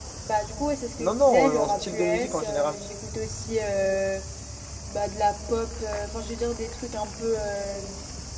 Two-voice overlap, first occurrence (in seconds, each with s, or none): 1.0 s